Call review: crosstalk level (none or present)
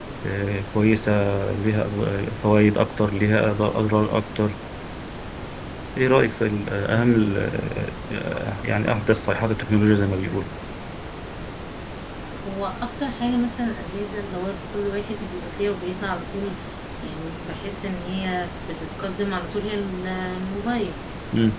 none